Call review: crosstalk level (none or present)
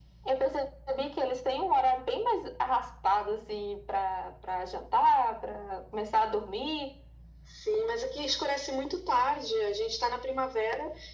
none